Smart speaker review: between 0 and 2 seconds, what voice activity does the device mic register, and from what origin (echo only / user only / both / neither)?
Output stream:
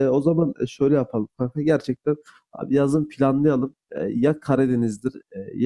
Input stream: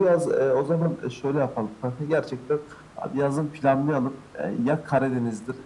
echo only